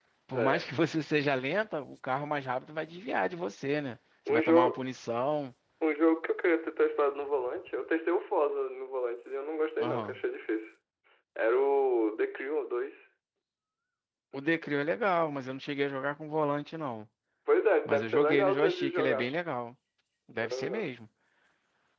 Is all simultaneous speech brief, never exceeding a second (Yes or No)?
No